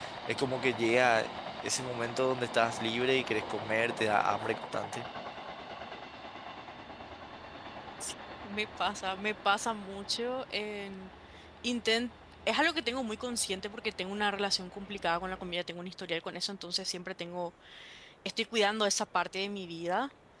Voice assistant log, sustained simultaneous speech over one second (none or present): none